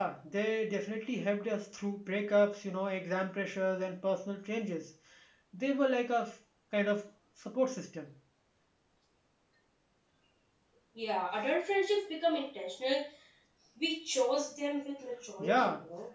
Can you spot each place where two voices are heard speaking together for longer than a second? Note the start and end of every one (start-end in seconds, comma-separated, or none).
none